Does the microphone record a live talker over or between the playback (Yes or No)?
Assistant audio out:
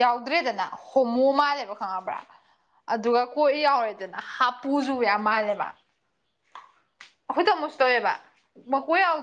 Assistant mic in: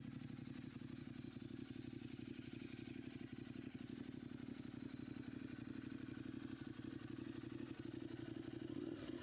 No